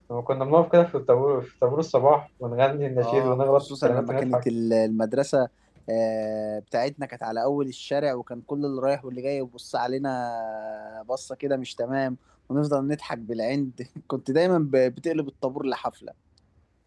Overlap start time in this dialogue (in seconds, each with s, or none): 3.0 s